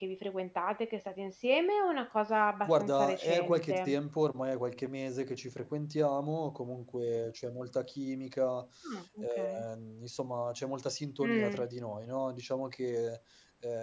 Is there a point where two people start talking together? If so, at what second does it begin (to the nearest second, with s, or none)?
3 s